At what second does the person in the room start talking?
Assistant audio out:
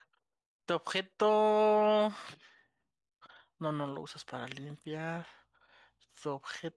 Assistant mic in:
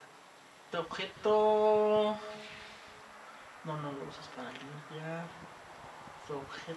none

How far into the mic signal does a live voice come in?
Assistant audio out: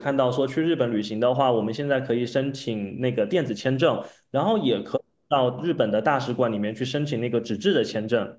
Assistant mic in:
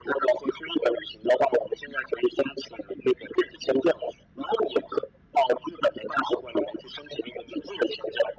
none

